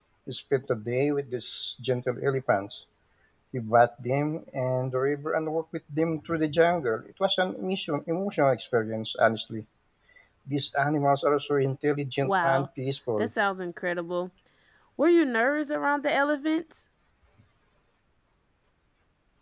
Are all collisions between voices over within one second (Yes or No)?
Yes